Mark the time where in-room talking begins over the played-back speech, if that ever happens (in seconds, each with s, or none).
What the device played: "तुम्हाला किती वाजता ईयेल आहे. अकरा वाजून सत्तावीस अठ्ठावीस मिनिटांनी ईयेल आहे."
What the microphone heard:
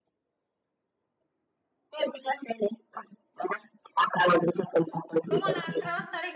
5.3 s